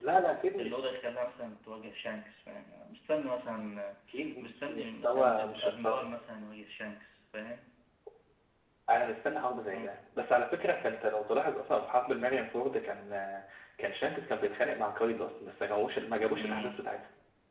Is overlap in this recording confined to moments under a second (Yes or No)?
No